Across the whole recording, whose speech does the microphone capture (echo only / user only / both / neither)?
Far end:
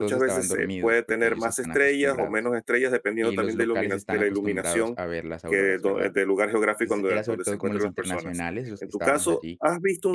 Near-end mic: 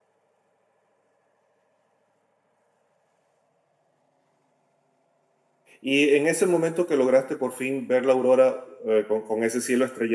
user only